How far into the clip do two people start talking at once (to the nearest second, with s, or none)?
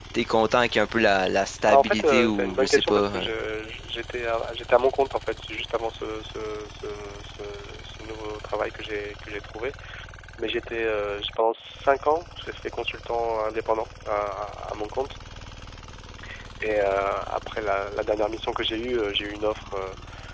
2 s